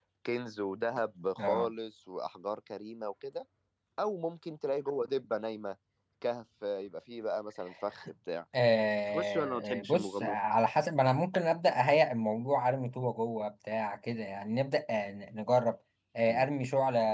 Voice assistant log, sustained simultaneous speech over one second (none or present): present